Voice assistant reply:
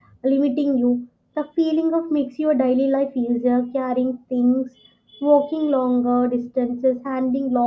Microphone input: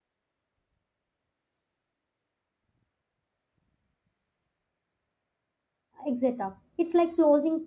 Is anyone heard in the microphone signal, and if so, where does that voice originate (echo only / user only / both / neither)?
user only